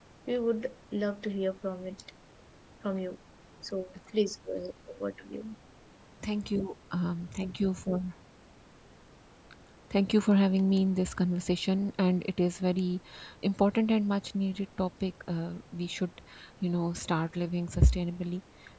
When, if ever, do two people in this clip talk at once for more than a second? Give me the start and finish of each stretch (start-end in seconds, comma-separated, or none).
none